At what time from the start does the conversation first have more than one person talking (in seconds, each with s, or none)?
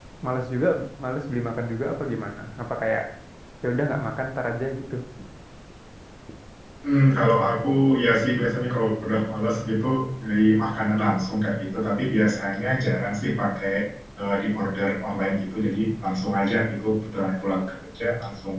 none